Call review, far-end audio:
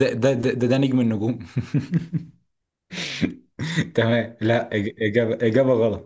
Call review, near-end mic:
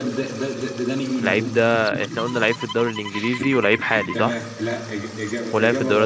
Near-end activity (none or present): present